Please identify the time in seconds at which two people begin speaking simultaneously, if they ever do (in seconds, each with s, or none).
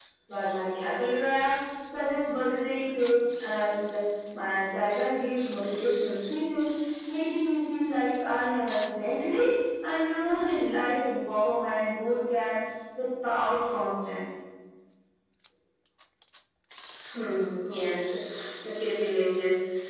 none